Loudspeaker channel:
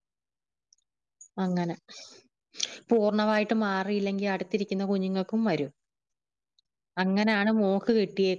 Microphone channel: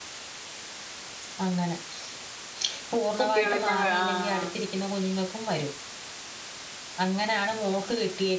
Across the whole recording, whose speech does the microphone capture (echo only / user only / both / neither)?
both